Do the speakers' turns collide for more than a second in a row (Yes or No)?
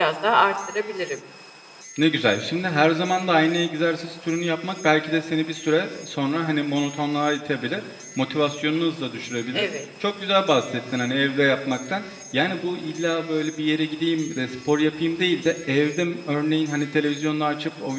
No